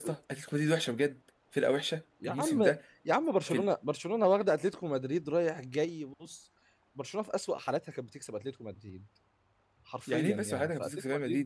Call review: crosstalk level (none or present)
present